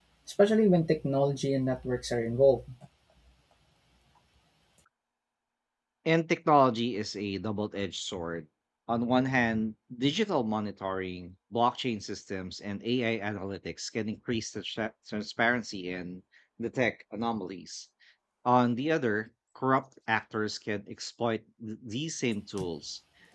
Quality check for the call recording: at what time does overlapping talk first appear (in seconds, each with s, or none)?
none